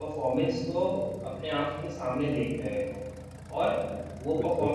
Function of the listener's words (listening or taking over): listening